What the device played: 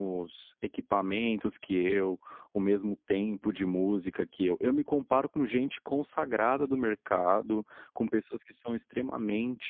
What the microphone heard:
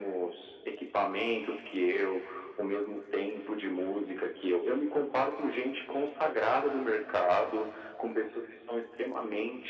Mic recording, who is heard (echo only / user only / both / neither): echo only